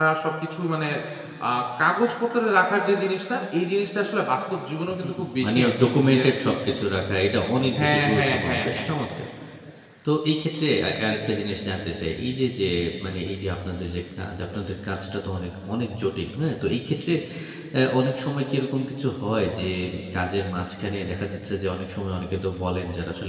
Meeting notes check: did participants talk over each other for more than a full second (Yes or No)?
Yes